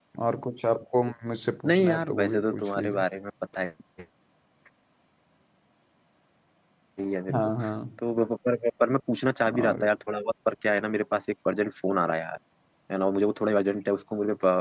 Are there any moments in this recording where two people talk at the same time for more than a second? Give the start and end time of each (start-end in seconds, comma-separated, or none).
1.7-3.0